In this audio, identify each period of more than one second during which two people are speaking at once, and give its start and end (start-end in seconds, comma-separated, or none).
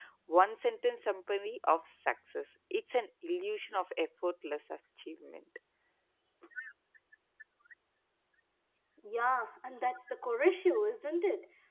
none